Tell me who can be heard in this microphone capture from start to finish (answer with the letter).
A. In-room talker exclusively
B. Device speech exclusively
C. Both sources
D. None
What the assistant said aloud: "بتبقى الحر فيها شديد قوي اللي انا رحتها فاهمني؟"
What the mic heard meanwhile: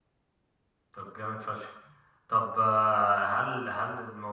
A